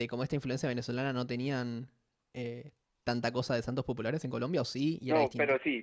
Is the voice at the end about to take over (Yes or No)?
Yes